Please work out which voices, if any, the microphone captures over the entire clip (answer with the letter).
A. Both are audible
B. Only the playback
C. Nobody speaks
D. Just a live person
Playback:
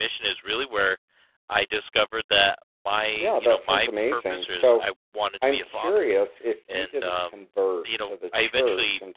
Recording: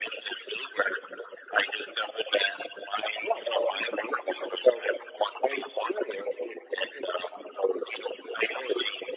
B